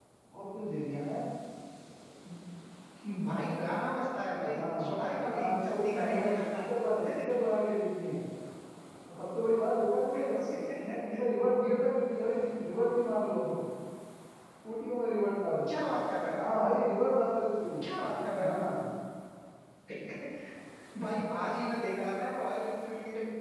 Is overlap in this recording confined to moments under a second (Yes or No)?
No